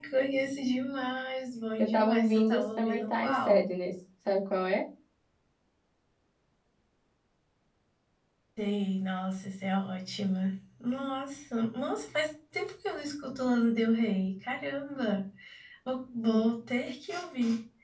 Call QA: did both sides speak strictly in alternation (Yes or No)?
No